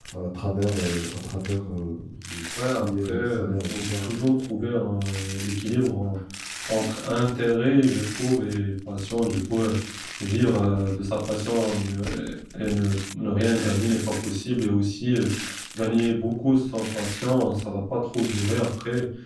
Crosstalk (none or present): present